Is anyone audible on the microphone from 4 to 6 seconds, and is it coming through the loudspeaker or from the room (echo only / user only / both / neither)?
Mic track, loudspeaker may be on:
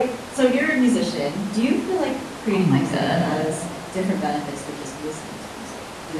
echo only